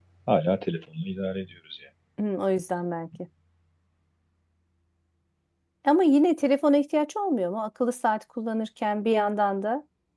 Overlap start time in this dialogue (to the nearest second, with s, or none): none